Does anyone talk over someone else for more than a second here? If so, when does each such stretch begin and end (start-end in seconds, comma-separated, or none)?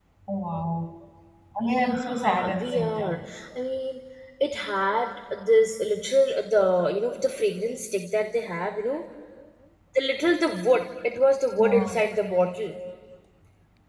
1.7-3.3